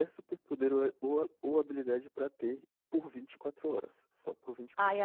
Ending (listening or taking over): taking over